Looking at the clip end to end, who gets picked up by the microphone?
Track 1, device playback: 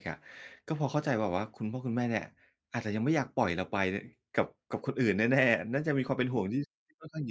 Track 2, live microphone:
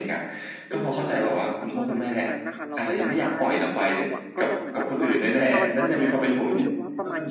both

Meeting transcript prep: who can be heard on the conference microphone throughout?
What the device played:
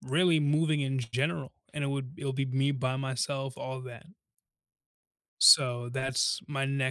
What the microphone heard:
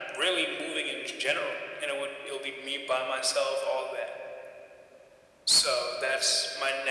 echo only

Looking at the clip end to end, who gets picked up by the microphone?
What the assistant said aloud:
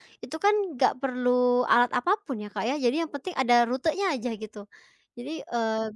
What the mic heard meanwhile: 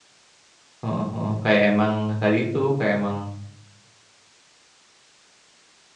user only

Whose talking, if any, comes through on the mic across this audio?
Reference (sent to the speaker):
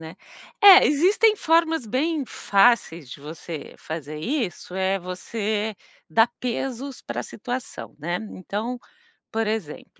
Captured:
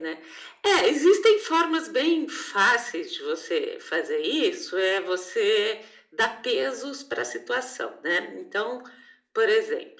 echo only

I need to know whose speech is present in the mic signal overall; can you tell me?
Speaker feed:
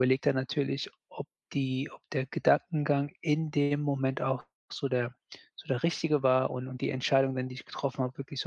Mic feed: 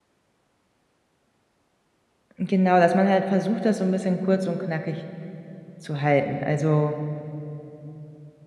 user only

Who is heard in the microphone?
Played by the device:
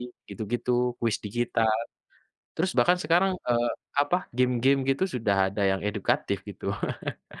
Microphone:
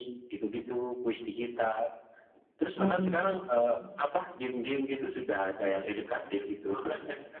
both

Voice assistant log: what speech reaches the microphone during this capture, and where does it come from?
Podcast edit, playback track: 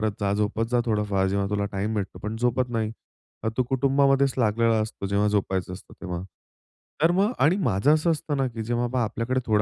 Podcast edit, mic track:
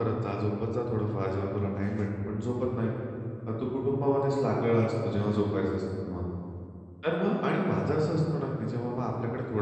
echo only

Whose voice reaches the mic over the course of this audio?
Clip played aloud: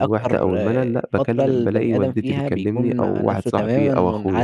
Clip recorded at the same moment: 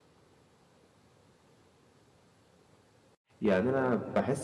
user only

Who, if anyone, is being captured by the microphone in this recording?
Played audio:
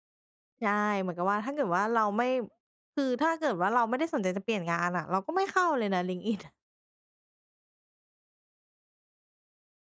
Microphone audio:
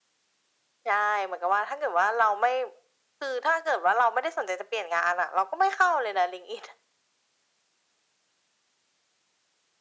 echo only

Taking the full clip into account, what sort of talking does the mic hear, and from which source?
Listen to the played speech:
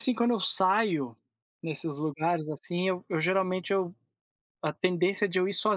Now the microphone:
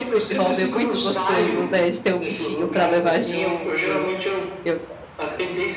both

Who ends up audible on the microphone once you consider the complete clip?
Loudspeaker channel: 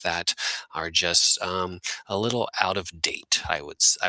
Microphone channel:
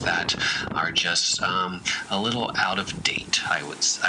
echo only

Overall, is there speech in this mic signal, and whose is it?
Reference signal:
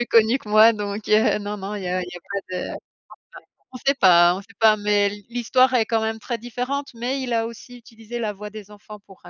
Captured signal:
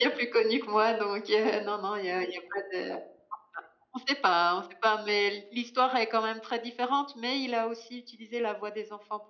echo only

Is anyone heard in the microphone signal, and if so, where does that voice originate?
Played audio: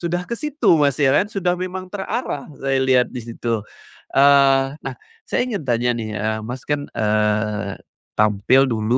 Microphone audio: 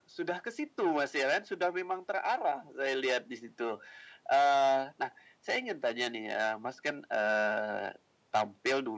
echo only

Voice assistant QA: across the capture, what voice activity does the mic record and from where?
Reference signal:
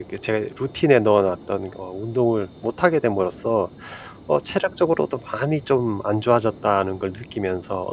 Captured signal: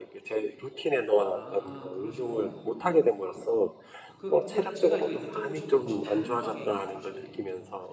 both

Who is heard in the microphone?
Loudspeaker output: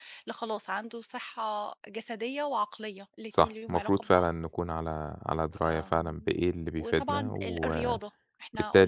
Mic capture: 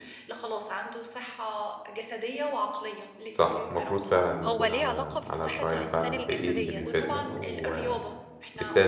both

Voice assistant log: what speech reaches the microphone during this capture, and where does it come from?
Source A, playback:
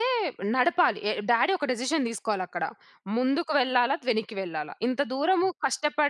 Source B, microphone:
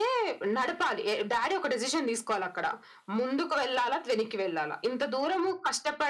echo only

